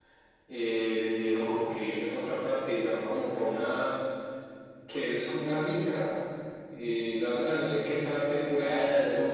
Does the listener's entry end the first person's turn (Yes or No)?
Yes